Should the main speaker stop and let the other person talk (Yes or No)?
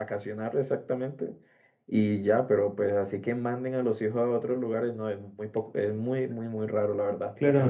Yes